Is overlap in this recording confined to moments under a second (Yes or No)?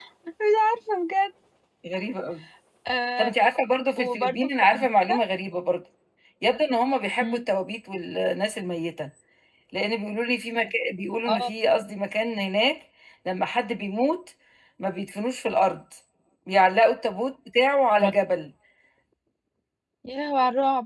No